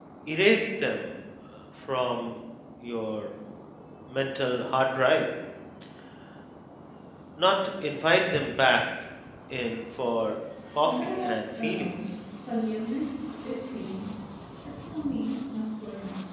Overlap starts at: 11 s

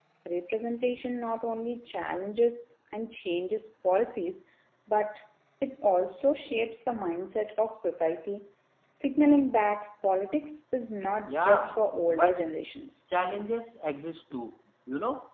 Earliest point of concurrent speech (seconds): 11 s

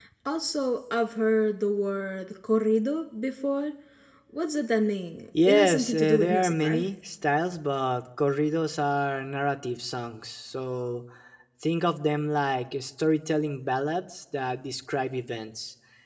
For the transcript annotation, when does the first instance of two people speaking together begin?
5 s

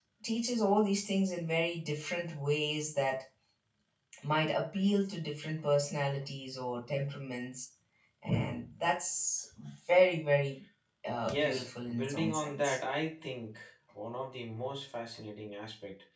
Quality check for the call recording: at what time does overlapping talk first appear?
11 s

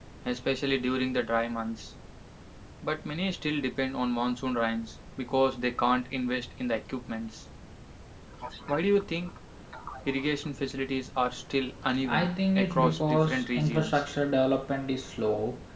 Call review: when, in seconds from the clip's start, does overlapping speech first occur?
12 s

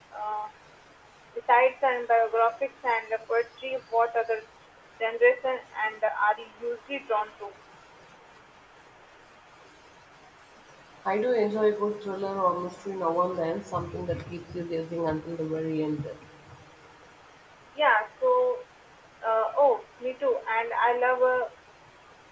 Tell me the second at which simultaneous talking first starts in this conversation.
none

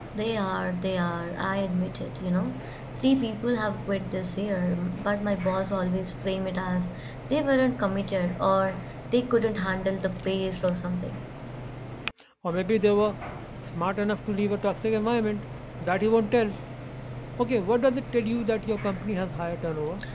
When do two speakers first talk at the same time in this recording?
none

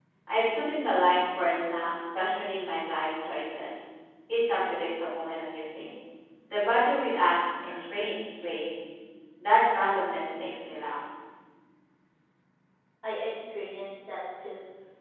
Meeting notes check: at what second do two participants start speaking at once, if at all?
none

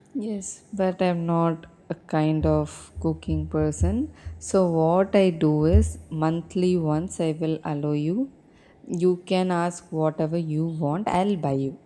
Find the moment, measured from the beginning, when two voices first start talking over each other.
none

